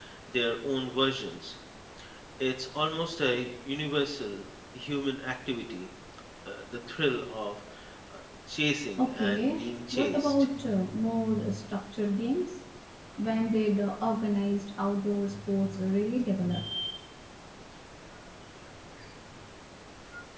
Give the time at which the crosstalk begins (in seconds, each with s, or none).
9.0 s